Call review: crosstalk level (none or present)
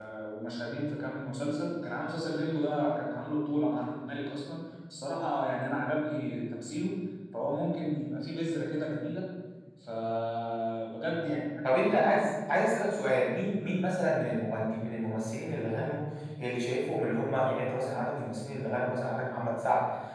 none